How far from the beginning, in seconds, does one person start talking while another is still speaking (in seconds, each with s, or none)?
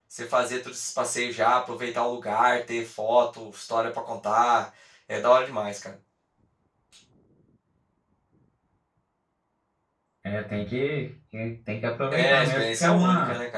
12.1 s